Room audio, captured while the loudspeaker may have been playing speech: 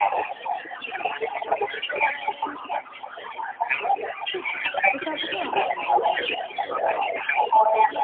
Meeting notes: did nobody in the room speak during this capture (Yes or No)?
No